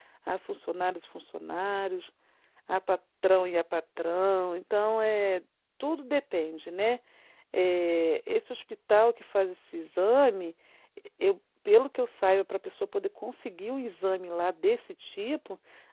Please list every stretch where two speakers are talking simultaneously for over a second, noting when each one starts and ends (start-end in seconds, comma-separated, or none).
none